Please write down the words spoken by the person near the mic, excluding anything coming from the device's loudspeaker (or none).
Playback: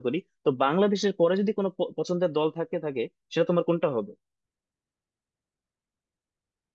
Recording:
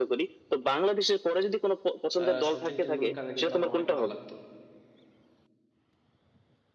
আহ, সচিন টেন্ডুলকারের কিন্তু আমার অনেক ভালো লাগতো